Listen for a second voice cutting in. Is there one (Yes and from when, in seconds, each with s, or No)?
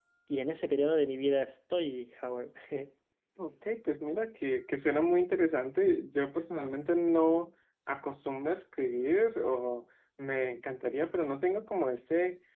No